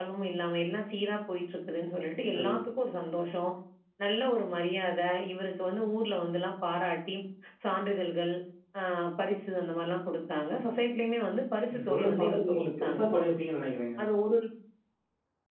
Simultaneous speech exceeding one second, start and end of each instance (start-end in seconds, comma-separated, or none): 11.7-13.0